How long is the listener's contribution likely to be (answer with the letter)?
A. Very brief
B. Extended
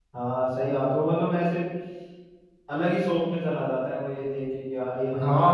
B